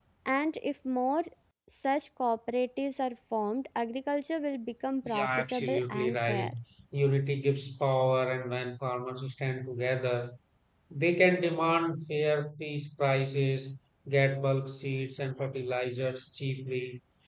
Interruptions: present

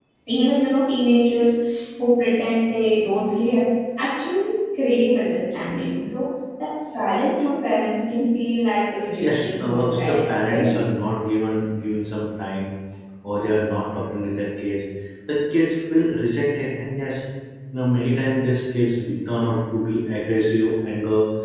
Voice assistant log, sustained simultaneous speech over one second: present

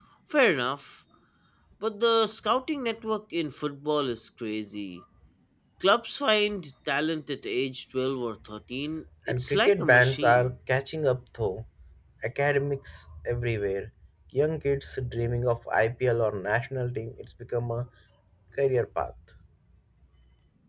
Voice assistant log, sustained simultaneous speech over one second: present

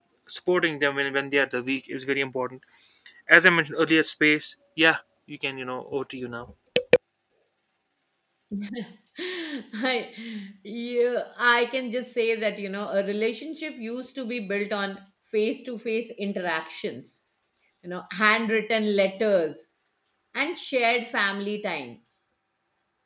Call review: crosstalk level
none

